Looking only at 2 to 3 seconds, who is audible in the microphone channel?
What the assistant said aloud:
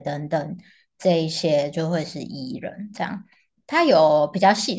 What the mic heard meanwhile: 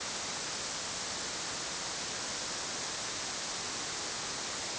neither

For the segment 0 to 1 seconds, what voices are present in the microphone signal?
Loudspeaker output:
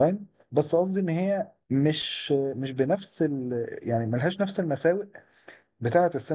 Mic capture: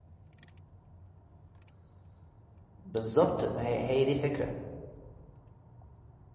neither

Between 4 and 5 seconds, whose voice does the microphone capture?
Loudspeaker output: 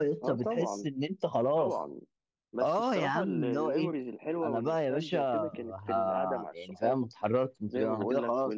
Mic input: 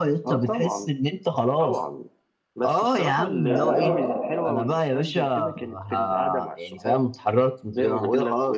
both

